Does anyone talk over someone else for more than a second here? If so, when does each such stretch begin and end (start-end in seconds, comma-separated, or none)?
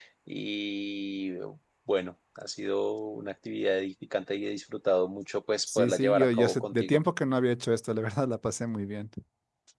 5.7-7.0